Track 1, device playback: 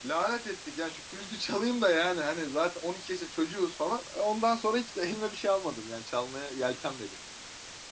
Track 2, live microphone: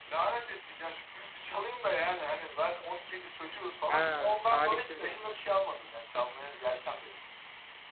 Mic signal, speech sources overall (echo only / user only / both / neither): both